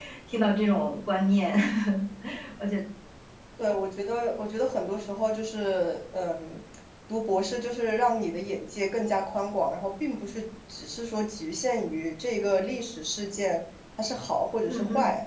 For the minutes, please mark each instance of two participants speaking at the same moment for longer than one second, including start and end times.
none

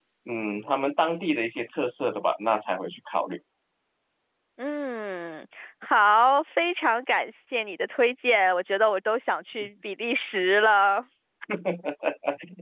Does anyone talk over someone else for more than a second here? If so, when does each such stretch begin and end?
none

